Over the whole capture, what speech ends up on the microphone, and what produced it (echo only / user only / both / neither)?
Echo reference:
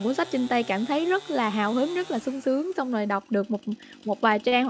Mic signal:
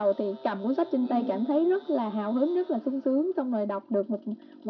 both